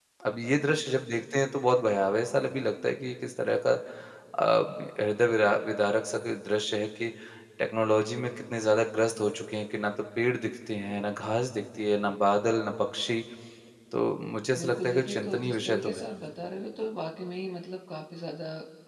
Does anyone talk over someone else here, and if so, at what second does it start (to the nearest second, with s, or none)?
15 s